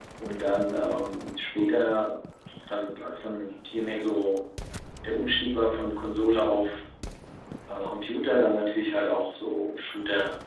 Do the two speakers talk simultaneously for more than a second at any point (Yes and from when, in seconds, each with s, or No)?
No